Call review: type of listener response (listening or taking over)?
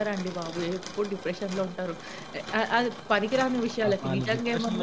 taking over